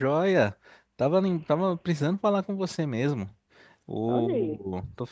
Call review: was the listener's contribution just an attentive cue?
Yes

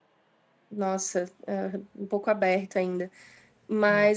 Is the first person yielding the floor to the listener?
No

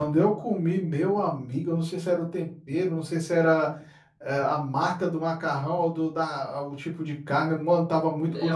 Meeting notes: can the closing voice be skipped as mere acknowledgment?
No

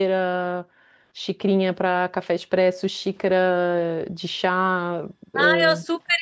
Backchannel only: No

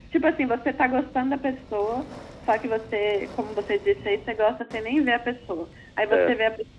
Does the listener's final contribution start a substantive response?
No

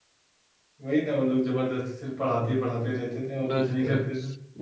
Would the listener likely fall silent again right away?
No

